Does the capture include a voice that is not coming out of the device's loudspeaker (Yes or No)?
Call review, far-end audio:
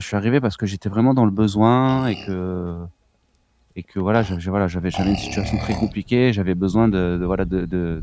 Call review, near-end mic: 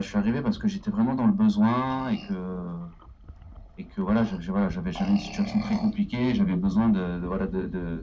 No